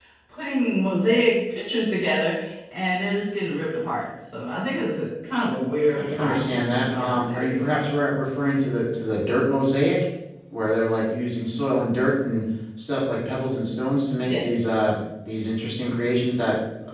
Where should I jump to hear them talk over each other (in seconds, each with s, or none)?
5.9 s